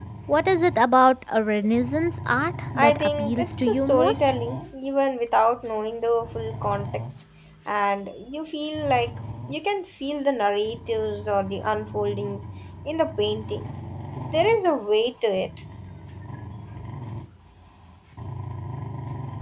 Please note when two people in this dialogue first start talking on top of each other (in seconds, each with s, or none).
2.8 s